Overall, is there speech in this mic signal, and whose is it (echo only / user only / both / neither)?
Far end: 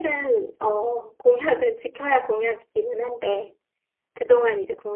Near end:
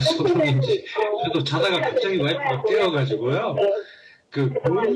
both